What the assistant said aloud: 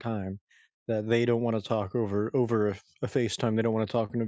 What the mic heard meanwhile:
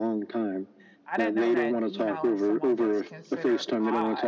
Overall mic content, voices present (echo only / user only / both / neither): both